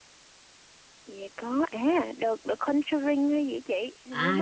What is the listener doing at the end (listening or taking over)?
taking over